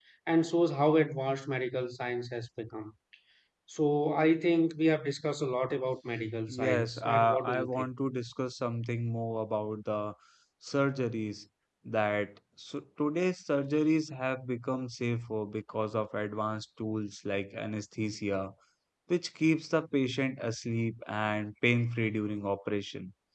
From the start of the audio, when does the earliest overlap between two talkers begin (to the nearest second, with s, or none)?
6 s